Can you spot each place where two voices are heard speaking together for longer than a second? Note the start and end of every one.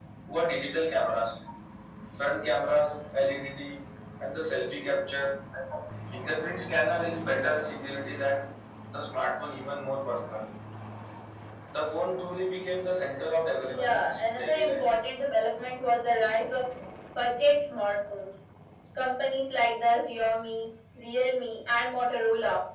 13.6-14.9

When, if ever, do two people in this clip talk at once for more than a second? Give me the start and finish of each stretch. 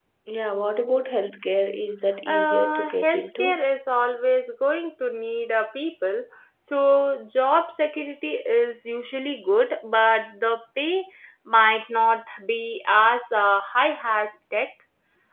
2.3-3.6

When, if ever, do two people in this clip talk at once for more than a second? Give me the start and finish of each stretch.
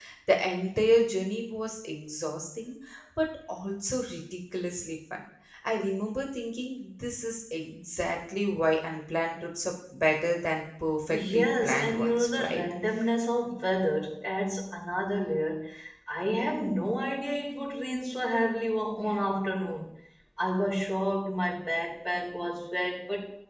11.1-12.6

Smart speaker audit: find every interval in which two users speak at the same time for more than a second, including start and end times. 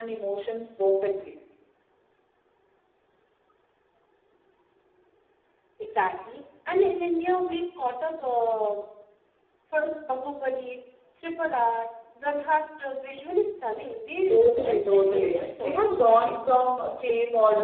14.3-16.4

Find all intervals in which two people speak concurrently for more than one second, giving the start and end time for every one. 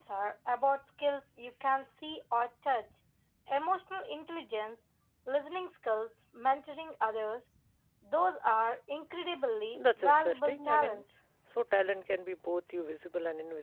9.8-11.0

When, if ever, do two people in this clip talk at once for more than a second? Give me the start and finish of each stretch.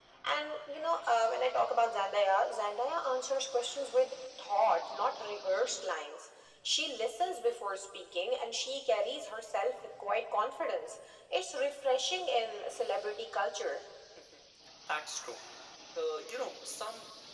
none

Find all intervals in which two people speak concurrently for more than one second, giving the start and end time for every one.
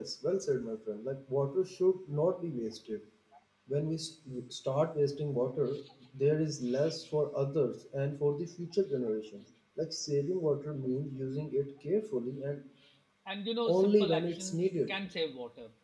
13.7-14.9

